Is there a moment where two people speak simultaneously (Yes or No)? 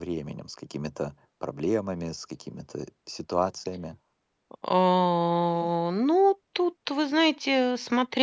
No